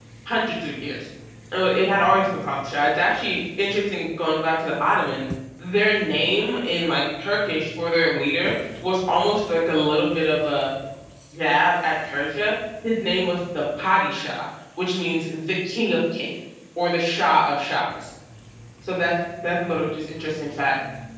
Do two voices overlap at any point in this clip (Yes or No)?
No